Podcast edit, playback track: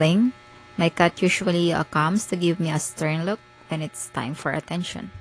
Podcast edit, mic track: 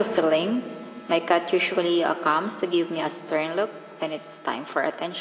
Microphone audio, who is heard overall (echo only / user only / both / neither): echo only